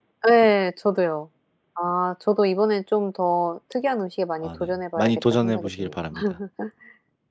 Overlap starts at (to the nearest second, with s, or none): 4 s